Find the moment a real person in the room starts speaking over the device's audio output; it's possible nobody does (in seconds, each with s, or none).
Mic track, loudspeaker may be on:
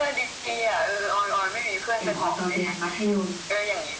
2.0 s